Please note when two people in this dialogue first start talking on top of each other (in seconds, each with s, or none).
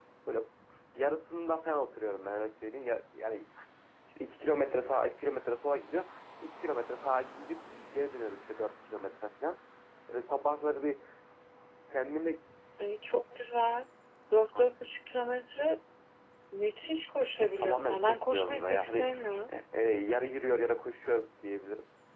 17.4 s